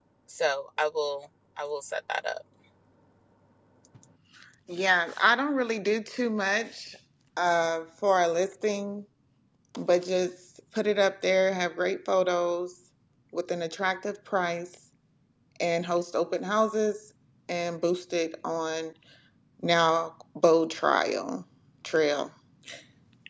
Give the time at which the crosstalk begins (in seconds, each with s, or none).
none